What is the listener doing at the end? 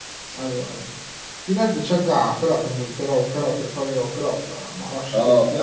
taking over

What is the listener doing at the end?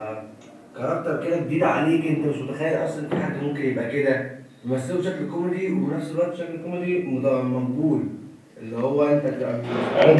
taking over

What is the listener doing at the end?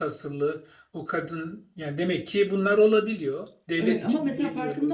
taking over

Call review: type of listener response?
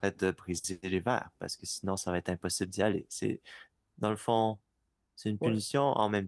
listening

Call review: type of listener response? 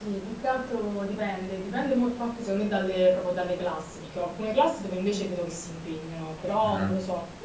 listening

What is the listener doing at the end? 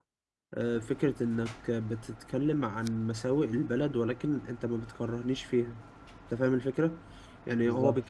listening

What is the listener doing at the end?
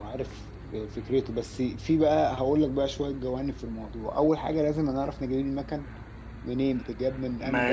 taking over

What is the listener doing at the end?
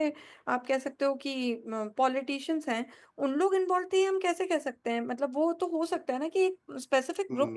taking over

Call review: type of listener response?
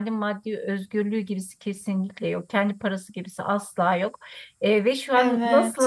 listening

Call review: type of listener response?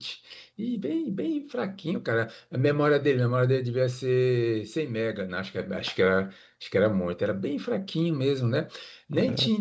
listening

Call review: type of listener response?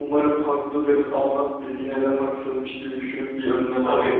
taking over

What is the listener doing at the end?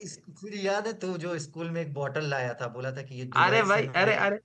taking over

